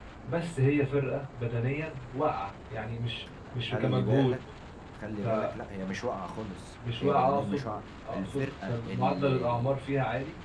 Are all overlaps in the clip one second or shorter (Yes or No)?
No